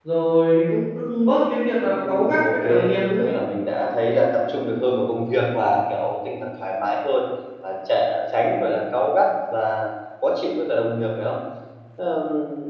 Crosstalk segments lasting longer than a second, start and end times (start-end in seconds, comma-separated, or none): 1.9-3.2